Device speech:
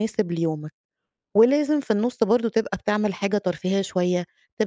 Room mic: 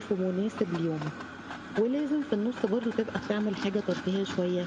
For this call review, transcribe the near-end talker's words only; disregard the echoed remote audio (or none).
none